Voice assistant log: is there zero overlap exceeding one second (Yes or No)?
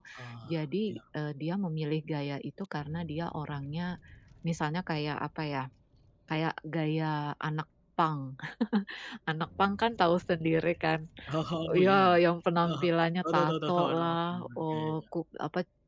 No